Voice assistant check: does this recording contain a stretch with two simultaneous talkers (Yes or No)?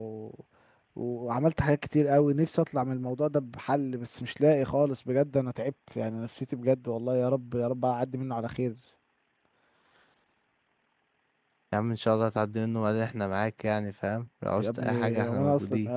Yes